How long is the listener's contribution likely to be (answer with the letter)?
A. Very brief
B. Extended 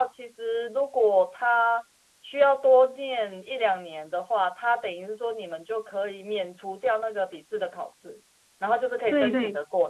A